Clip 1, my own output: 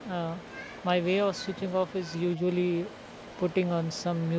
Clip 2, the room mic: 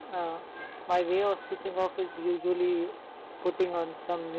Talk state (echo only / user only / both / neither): echo only